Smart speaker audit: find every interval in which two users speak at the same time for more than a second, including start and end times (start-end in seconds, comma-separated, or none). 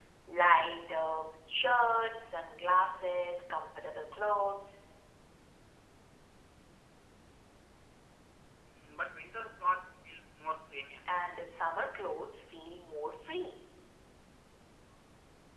none